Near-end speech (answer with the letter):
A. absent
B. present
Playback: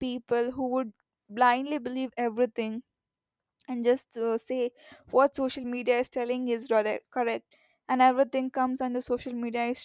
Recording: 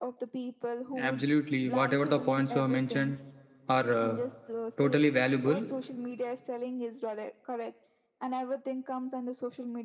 B